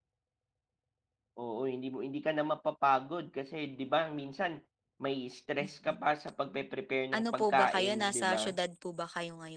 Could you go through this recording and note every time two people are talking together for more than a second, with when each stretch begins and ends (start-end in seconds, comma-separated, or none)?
7.2-8.4